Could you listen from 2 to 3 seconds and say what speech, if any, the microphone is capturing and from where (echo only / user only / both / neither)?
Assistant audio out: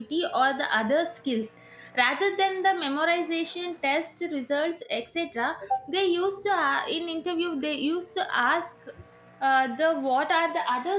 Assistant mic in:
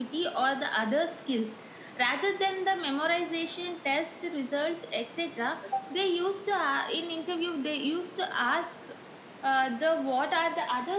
echo only